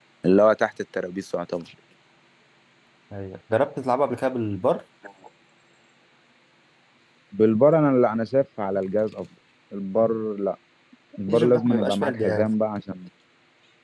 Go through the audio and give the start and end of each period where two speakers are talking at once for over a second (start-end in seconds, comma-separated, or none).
11.3-12.5